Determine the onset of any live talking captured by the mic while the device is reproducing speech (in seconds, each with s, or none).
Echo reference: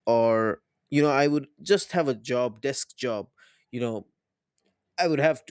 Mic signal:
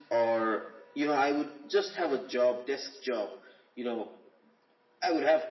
none